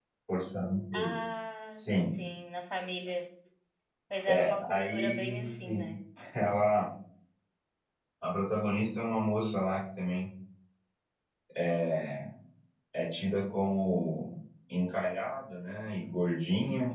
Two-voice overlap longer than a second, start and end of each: 4.3-5.5

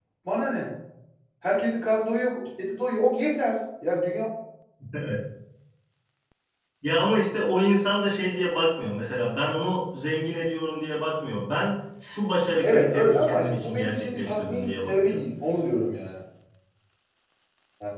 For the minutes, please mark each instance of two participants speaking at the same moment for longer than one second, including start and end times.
12.6-15.2

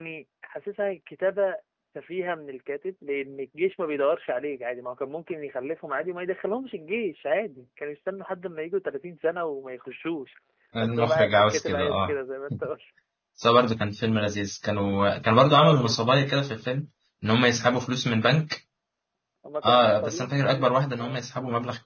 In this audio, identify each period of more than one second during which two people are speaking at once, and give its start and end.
10.8-12.2, 19.6-21.2

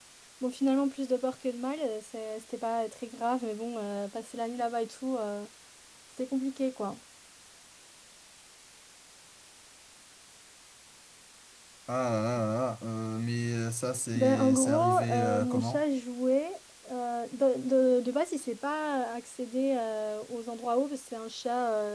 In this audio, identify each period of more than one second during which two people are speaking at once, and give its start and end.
14.2-15.8

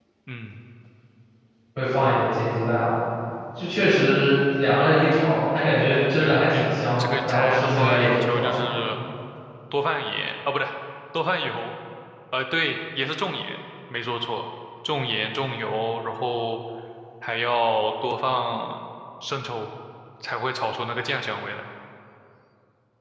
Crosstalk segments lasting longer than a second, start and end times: 7.0-8.6

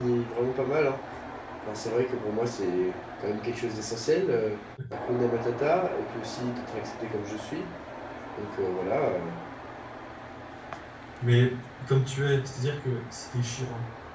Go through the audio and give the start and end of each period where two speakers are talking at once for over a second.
none

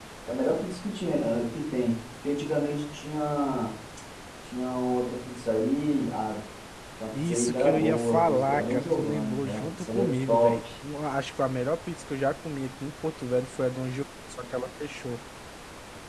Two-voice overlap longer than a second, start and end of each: 7.1-10.6

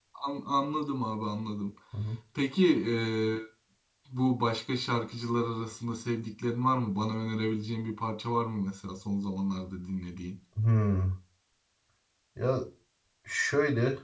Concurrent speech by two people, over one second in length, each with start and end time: none

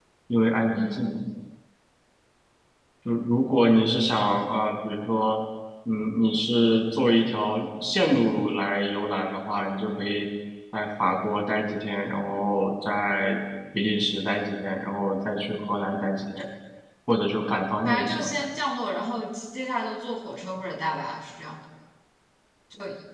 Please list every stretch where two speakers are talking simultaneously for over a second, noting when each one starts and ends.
none

